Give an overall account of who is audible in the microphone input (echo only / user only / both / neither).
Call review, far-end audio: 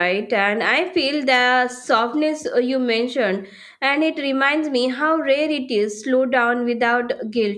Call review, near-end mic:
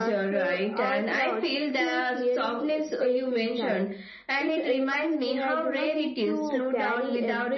both